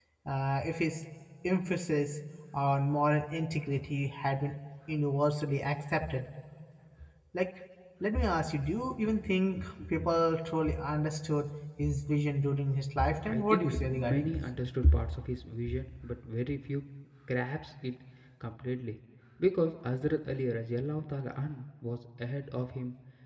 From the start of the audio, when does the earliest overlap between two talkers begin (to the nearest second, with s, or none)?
13 s